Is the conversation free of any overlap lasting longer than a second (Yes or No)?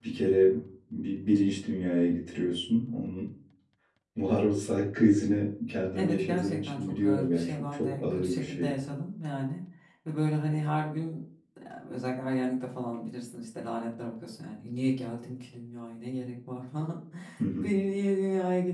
No